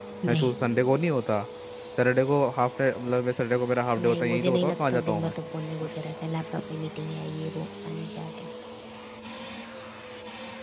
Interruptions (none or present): present